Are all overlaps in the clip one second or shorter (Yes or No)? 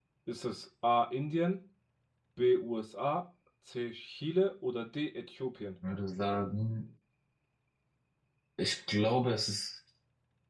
Yes